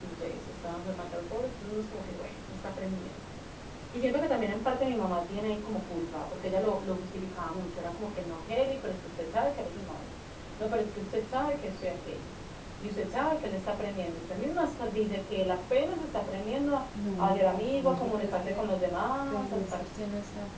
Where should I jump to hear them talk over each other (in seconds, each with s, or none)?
17.2 s